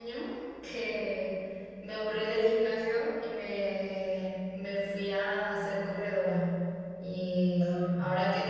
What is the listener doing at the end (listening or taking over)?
listening